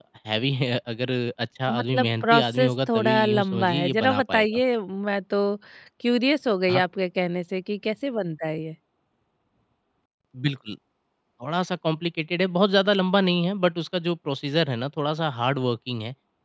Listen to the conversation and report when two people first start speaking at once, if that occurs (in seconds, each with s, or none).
1.7 s